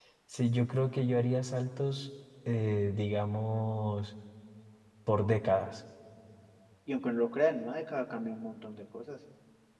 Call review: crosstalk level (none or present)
none